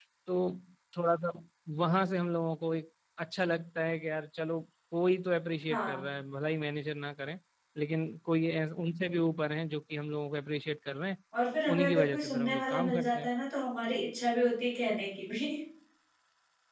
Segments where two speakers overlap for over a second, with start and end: 11.7-13.3

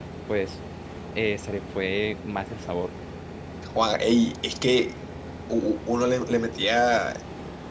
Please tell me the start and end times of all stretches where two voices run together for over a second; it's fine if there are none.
none

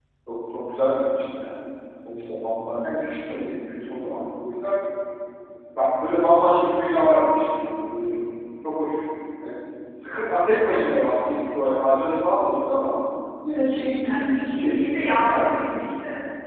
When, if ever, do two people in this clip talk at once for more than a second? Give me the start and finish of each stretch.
14.0-15.6

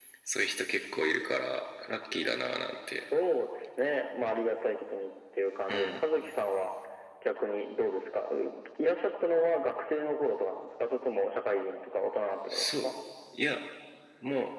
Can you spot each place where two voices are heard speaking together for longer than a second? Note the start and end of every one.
none

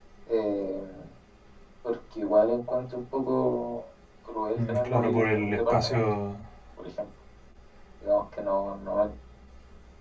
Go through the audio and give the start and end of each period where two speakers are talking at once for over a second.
4.6-6.0

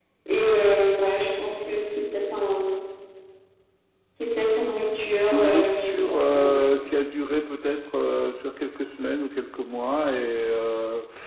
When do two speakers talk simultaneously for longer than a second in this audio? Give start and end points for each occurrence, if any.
5.3-6.5

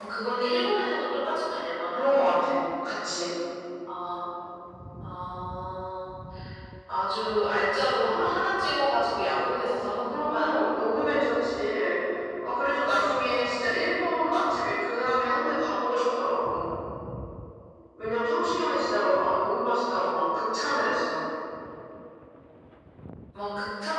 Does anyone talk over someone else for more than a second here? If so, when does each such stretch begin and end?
none

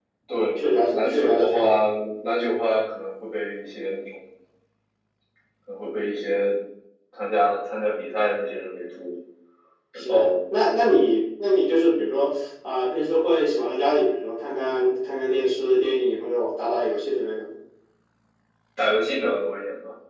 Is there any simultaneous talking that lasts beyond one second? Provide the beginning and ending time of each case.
0.6-1.9

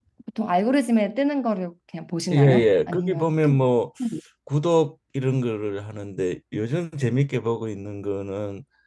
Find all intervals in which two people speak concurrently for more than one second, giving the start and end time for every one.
2.3-3.5

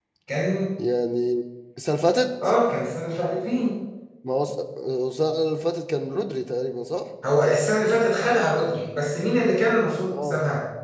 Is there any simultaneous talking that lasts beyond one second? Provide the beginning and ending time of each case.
none

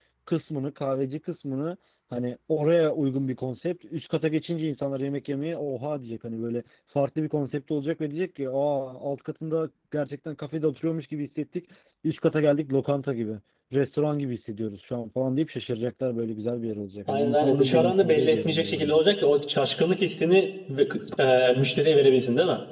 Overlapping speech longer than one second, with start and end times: 17.1-19.0

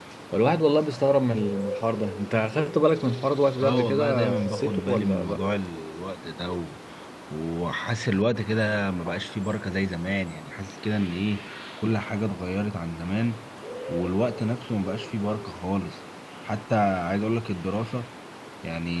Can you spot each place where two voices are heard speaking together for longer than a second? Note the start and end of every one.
3.6-5.4

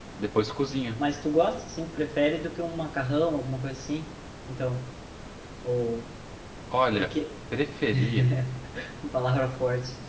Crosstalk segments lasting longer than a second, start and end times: none

